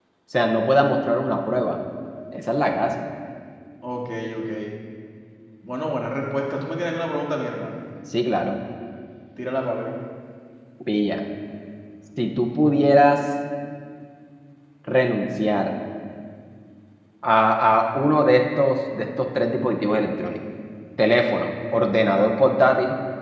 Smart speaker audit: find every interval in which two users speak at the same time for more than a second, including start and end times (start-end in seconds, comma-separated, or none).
none